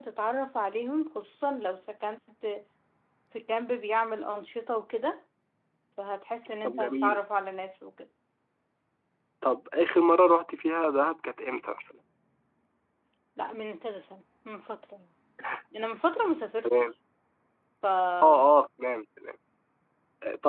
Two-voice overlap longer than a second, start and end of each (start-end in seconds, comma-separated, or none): none